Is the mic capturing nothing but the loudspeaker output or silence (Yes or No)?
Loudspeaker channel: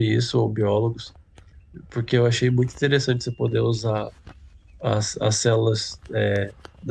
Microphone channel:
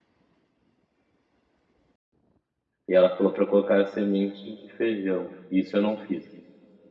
No